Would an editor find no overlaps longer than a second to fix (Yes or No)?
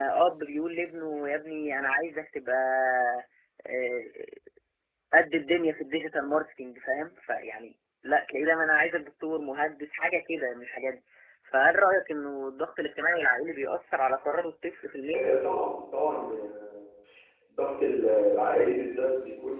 Yes